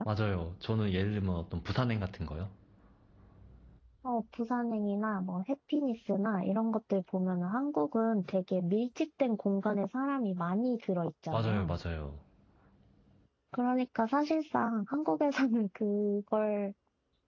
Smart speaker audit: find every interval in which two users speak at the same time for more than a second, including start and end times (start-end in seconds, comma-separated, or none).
none